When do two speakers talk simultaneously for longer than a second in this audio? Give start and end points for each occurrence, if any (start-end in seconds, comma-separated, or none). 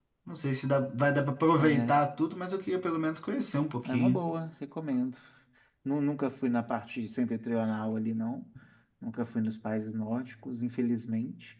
none